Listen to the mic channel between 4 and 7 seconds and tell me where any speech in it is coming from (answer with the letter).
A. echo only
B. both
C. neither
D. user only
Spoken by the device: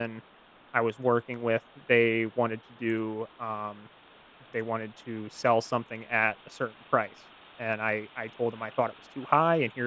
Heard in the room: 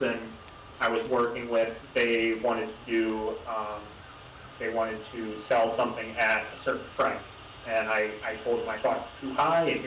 A